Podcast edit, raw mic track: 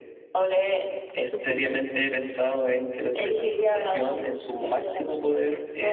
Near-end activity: present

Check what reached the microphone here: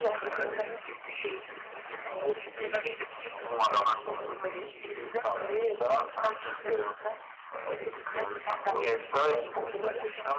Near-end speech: present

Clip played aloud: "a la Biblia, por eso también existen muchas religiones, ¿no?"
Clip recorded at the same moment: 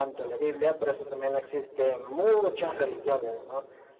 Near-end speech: none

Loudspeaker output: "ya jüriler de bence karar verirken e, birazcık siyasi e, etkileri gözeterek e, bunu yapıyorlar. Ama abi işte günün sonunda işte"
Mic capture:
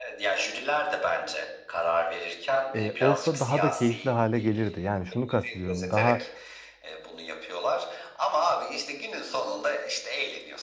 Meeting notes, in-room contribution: present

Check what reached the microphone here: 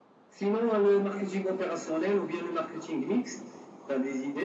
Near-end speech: none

